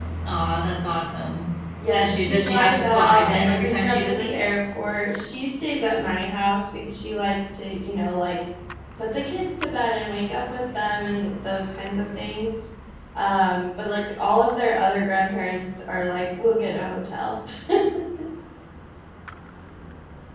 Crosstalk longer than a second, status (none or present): present